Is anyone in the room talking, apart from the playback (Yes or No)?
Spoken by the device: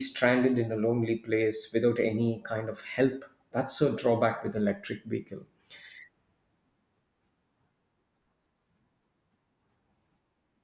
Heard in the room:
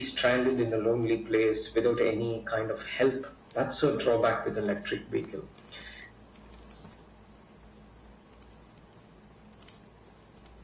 No